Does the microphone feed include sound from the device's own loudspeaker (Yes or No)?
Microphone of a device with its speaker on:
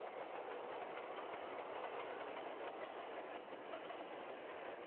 No